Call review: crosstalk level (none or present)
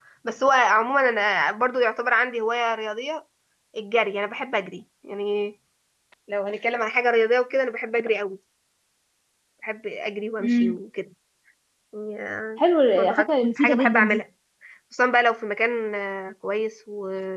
present